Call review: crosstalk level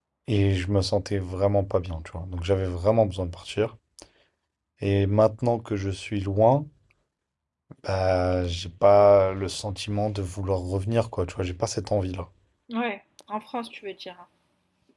none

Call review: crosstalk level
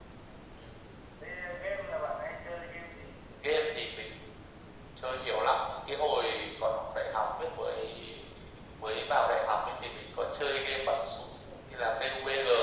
none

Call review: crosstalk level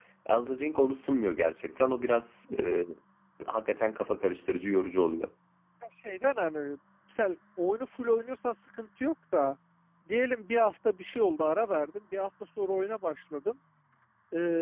none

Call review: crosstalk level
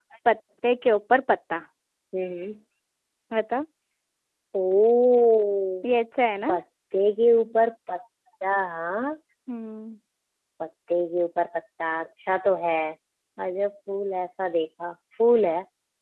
none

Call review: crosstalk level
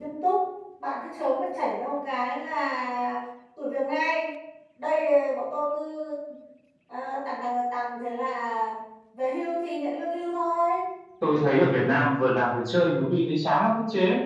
none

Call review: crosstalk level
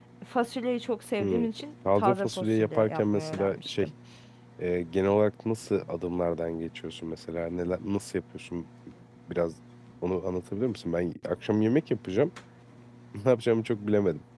present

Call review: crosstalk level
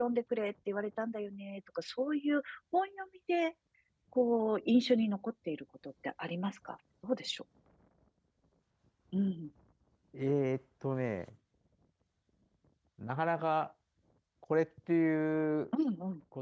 none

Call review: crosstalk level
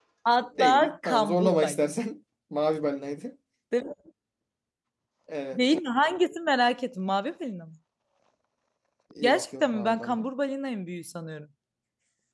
present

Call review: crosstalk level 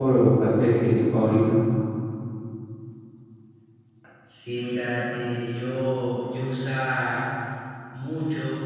none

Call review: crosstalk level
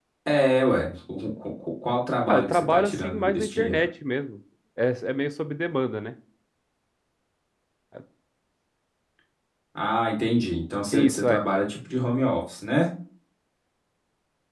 present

